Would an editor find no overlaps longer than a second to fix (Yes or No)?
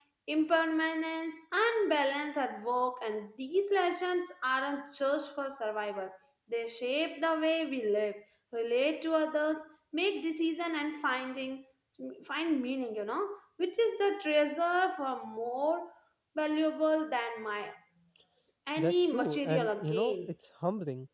No